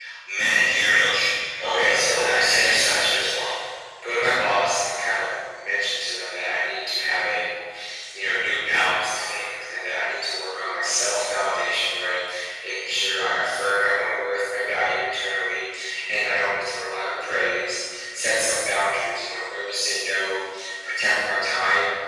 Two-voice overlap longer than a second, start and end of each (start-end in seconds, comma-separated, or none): 1.6-3.3